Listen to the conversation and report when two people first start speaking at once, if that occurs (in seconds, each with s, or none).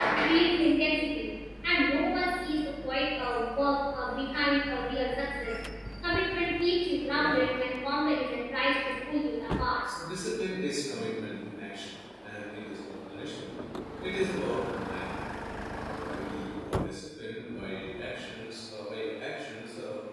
none